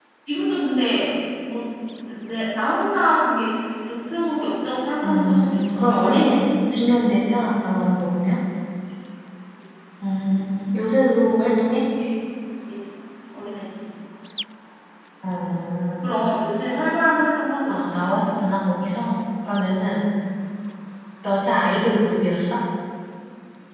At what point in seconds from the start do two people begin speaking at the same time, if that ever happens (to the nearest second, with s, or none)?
5 s